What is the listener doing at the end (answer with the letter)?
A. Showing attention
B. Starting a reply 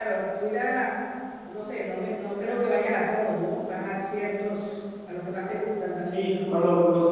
B